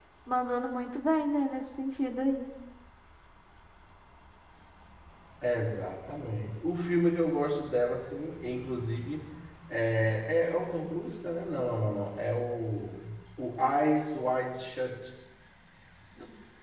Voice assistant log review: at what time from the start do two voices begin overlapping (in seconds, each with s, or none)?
none